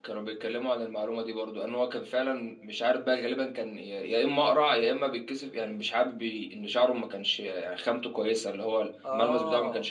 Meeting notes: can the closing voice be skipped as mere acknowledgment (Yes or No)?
Yes